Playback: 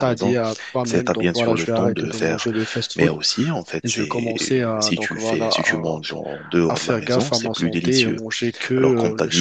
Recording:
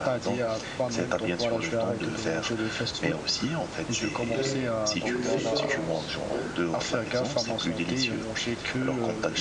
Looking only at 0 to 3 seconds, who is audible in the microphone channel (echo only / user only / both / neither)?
echo only